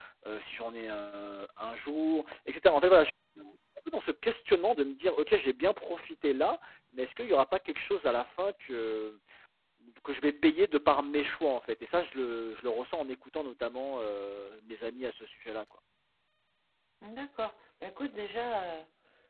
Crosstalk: none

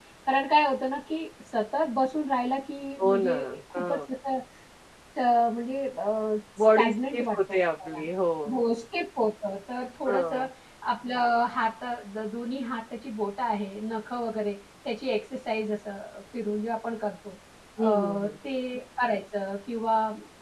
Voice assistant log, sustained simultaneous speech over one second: present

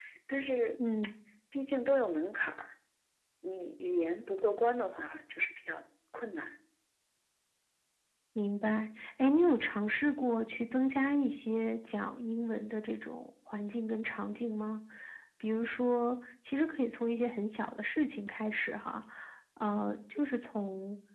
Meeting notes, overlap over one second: none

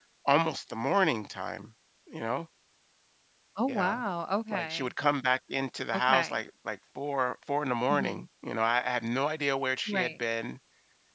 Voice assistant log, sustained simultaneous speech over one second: none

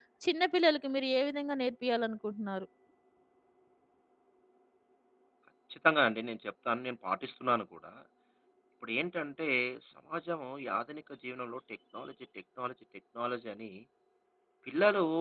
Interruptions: none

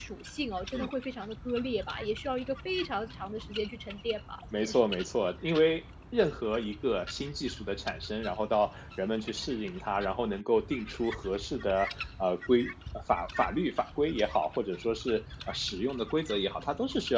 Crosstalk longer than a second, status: none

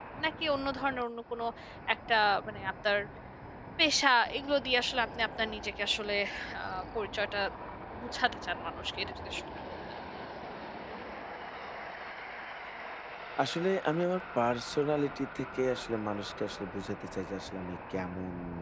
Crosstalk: none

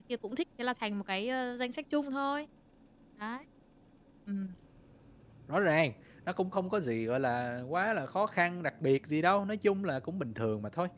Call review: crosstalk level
none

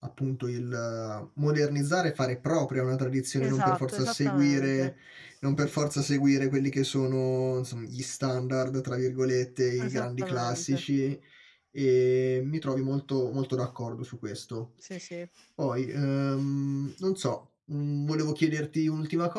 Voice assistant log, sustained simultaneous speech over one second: present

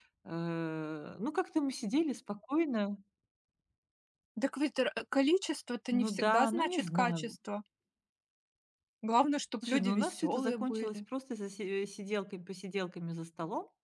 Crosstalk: present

